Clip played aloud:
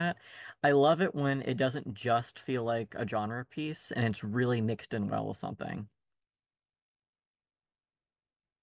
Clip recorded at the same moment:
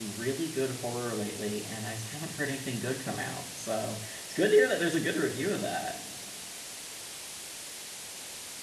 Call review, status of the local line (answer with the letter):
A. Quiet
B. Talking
B